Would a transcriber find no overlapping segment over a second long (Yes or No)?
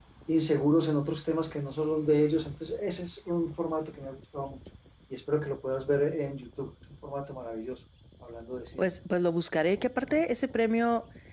Yes